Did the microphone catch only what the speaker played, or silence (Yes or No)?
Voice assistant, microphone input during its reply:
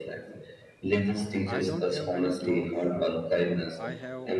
No